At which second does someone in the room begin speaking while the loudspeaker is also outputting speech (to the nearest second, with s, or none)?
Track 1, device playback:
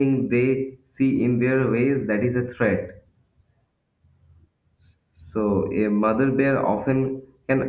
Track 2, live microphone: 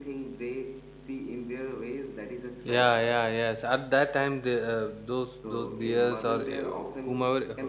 3 s